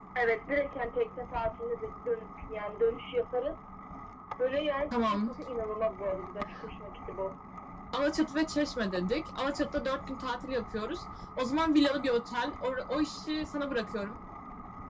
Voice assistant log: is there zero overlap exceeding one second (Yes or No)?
Yes